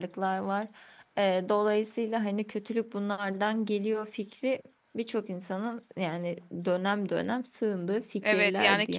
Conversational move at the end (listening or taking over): taking over